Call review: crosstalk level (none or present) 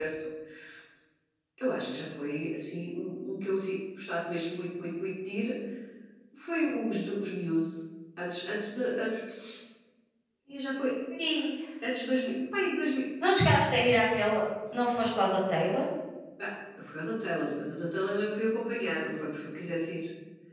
none